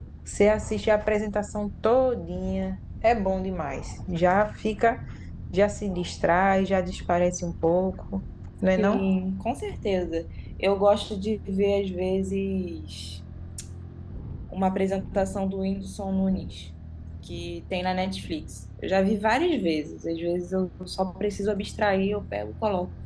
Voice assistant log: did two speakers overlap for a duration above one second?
No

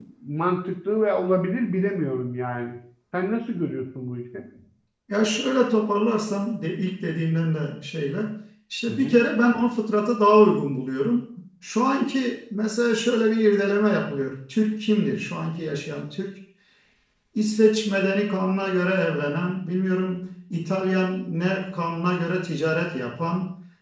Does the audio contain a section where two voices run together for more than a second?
No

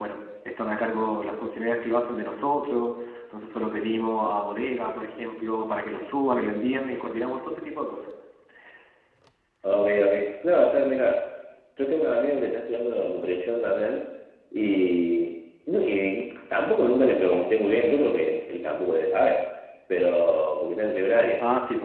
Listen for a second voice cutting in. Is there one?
No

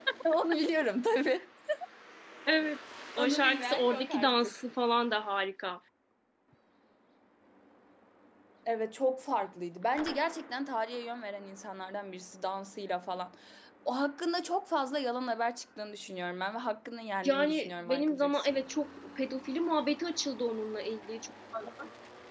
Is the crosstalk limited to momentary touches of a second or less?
No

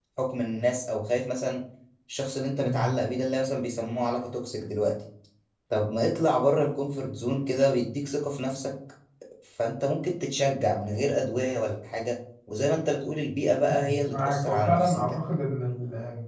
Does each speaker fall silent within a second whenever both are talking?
No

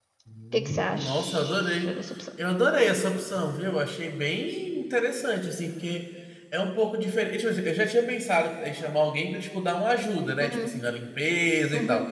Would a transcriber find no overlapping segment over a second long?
No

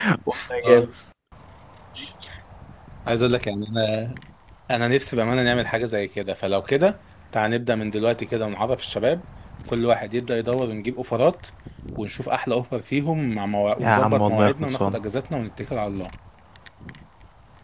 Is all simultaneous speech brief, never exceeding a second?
No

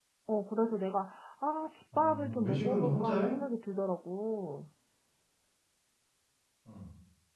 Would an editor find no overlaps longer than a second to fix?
No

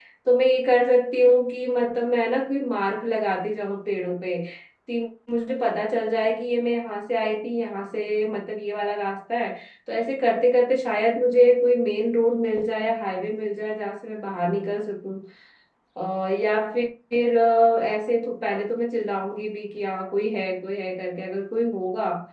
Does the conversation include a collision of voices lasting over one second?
No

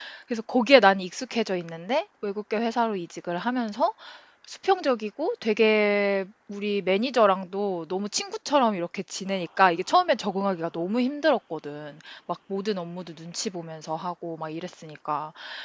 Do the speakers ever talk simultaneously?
No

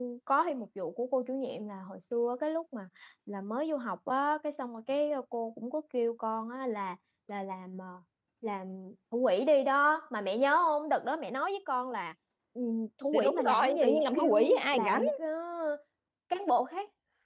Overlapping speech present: Yes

